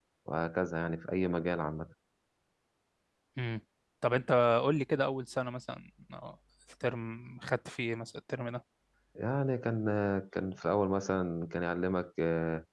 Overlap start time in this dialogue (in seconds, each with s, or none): none